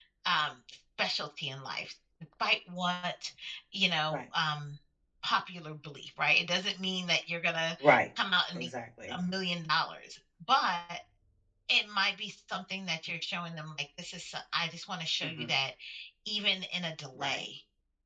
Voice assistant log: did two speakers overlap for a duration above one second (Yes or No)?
No